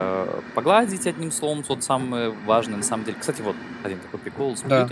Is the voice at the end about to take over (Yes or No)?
No